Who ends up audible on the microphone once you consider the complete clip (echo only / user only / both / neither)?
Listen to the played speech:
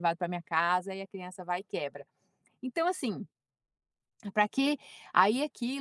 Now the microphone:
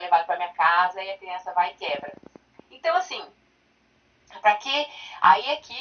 echo only